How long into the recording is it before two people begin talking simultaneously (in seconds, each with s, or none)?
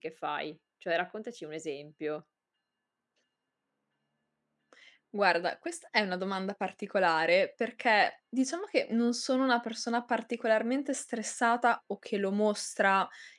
none